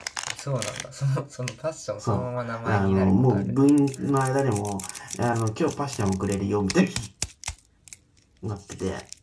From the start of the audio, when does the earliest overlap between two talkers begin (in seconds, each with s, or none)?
2.0 s